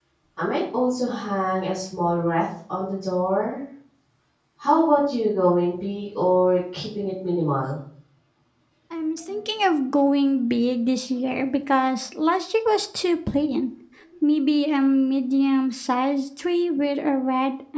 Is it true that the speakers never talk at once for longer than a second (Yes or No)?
Yes